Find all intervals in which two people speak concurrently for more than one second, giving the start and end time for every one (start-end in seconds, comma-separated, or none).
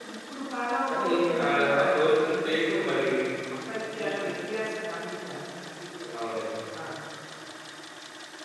0.9-2.9